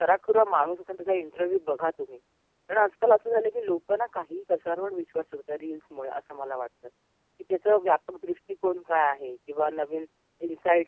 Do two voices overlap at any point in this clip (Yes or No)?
No